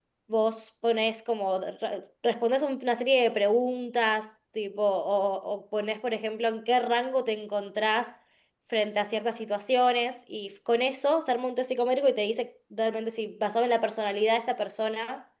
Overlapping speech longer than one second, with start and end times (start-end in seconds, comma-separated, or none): none